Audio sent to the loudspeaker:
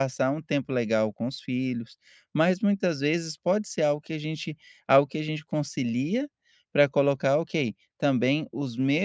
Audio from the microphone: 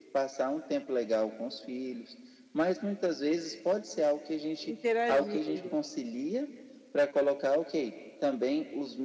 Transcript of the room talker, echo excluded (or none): interagindo.